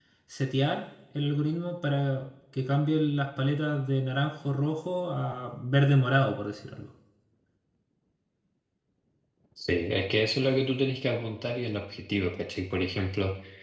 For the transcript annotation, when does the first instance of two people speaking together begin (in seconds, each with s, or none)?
none